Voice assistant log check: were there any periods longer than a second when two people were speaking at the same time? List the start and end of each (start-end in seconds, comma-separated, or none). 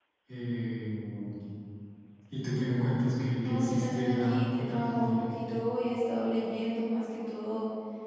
3.4-5.3